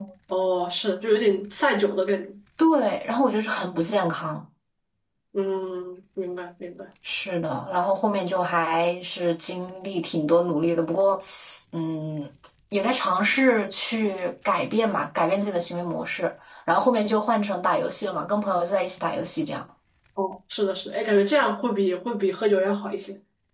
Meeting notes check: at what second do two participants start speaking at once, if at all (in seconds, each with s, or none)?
none